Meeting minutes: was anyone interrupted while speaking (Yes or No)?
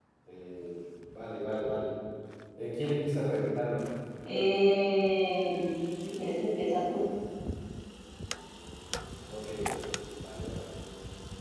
No